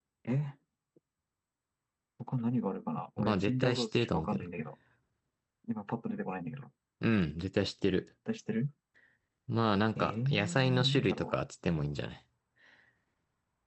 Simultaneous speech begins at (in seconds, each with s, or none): 3.2 s